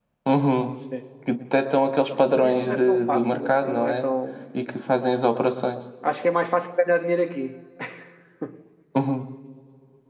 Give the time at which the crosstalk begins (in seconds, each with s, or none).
2.1 s